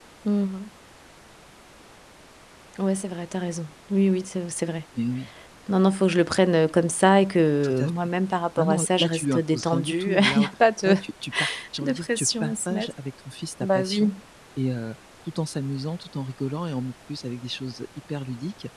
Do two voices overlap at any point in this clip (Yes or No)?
Yes